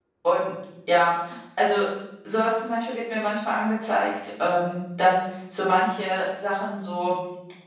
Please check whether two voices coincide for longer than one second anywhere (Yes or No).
No